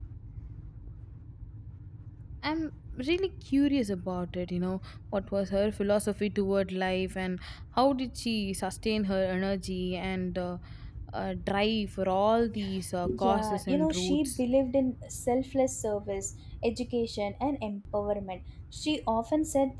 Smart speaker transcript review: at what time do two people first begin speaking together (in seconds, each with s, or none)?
13.0 s